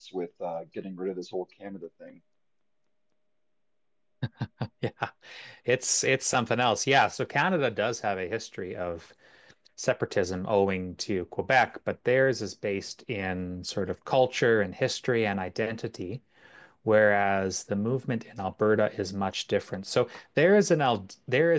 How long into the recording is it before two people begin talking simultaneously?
none

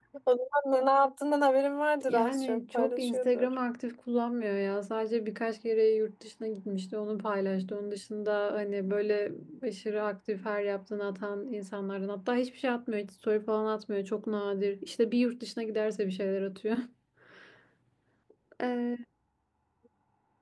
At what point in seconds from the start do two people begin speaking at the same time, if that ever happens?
2 s

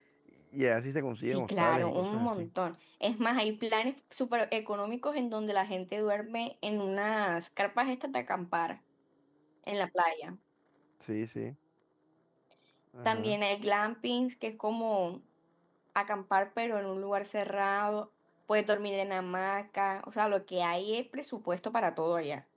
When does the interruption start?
1 s

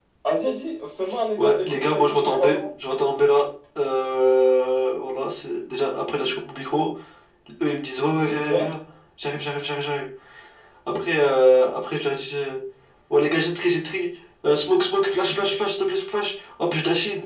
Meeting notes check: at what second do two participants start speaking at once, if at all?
1 s

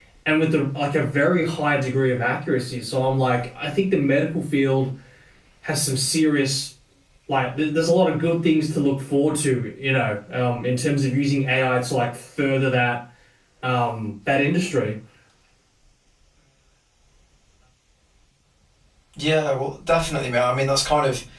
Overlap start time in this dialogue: none

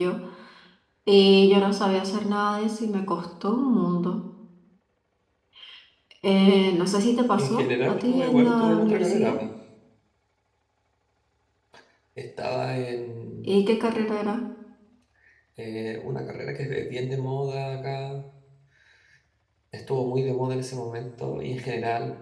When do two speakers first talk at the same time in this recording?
7 s

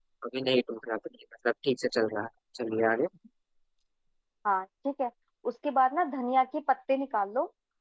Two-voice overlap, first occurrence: none

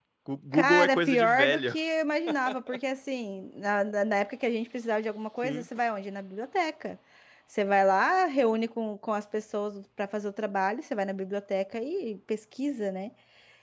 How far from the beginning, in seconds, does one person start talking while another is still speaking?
1 s

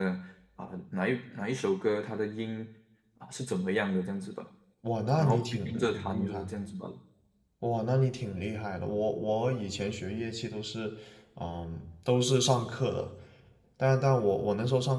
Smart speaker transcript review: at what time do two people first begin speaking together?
5 s

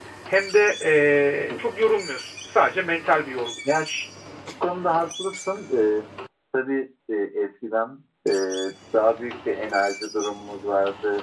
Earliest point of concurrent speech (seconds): none

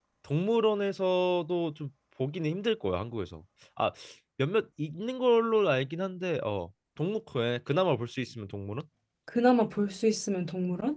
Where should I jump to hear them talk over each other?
none

